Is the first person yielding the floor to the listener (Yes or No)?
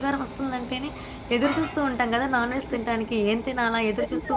Yes